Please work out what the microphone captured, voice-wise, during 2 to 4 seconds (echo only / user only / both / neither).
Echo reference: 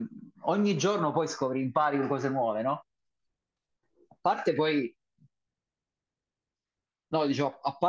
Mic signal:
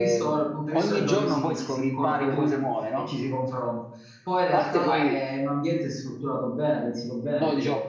both